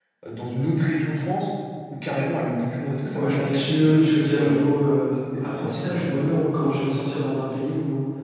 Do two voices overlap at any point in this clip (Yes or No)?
Yes